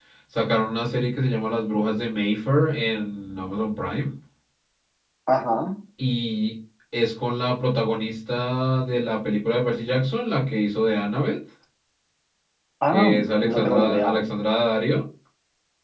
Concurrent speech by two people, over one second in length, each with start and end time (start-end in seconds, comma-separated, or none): 12.9-14.2